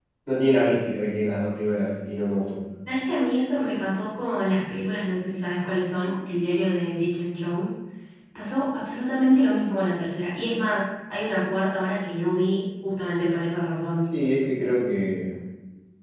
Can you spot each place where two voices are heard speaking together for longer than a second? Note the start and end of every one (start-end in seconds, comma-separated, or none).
none